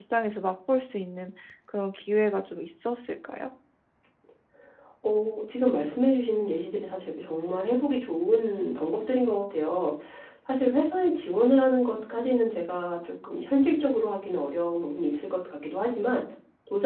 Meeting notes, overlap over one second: none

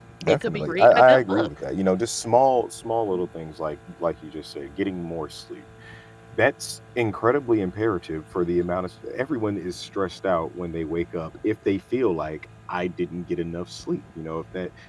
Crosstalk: present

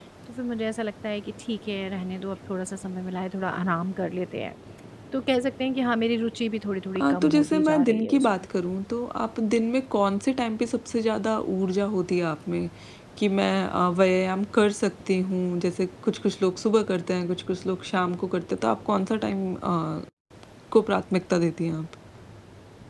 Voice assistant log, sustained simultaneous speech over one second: present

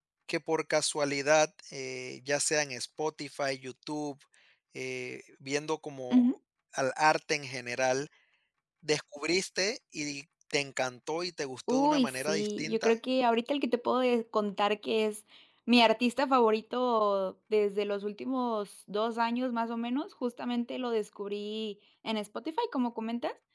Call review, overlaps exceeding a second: present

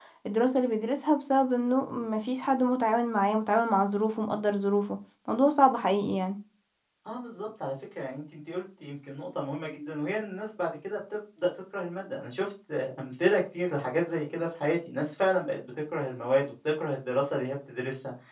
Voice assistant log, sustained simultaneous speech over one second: none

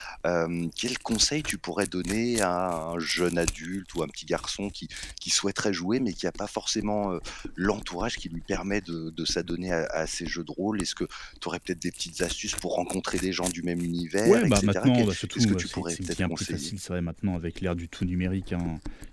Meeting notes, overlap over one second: present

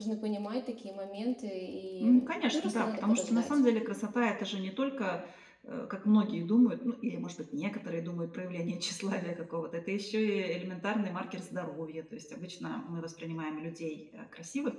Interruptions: present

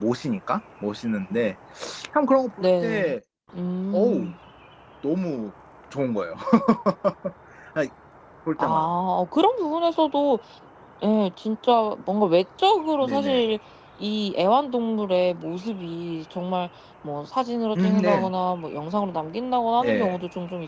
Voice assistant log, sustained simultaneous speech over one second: none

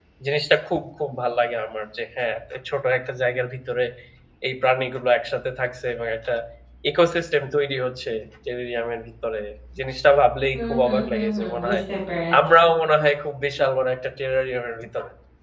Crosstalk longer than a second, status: present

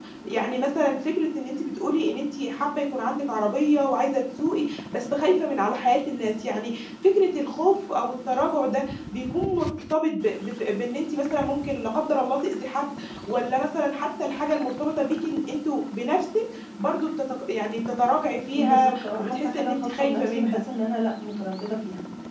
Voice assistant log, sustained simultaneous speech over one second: present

